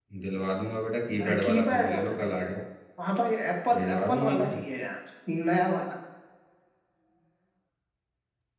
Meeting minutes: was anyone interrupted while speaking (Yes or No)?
Yes